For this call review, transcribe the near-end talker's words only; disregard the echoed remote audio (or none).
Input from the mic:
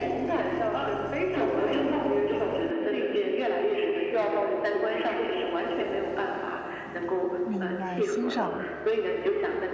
明白，欣赏。